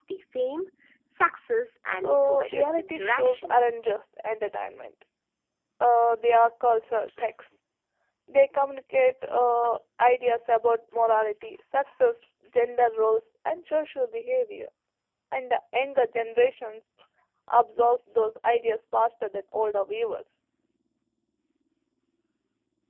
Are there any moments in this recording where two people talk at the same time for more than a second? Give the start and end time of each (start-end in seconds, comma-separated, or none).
1.9-3.5